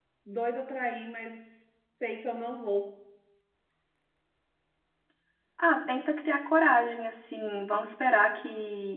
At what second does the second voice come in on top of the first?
none

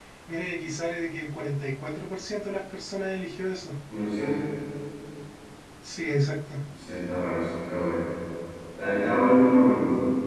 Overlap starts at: none

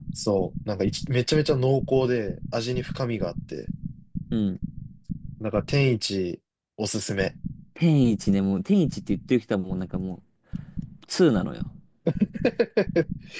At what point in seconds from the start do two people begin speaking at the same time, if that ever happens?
none

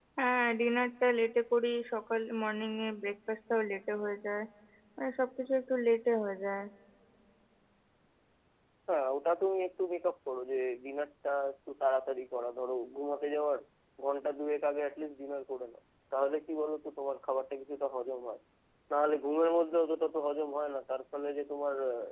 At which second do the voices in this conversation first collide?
none

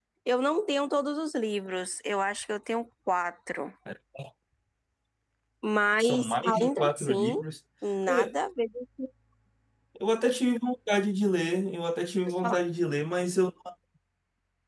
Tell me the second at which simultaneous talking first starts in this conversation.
6.0 s

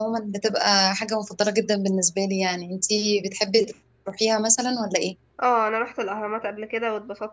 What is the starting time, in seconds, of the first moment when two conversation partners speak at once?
none

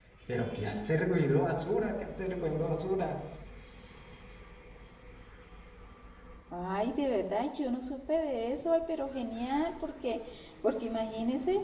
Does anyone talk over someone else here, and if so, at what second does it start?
none

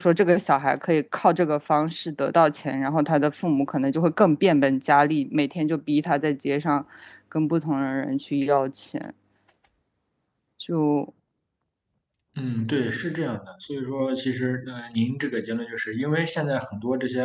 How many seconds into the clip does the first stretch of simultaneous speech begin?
none

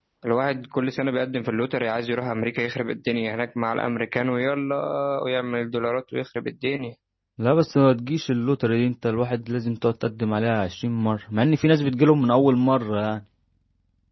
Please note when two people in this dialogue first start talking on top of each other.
none

